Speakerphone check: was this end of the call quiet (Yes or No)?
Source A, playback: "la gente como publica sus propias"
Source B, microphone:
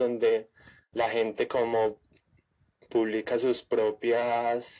Yes